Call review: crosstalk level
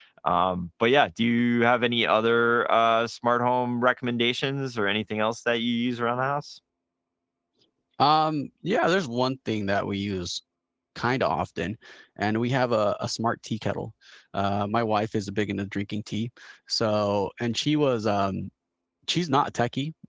none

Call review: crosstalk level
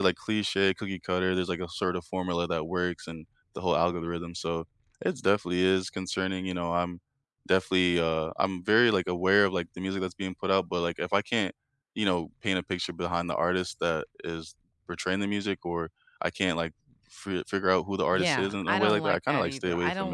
present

